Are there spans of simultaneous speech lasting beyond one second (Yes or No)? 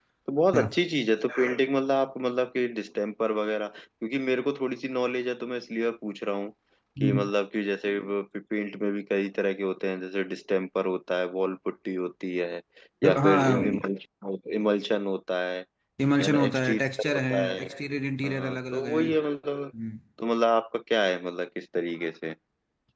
Yes